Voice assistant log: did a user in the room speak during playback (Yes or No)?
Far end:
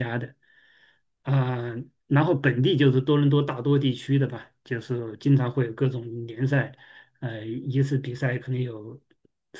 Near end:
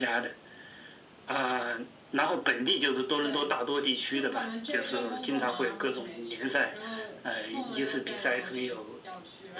Yes